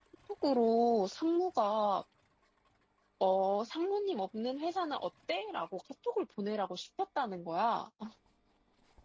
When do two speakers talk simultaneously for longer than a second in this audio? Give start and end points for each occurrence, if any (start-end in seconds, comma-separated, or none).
none